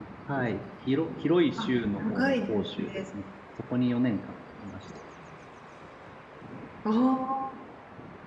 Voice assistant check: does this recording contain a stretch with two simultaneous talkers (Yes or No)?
Yes